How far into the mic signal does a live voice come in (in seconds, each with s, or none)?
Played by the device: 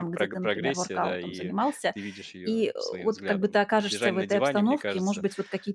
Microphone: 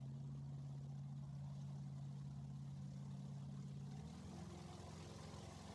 none